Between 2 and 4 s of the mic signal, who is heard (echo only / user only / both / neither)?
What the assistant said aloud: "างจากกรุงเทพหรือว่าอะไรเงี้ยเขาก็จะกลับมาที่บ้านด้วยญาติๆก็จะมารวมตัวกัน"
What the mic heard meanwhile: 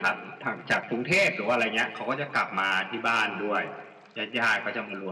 echo only